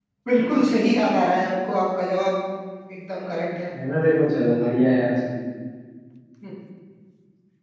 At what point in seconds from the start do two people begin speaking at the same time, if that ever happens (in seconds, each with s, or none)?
none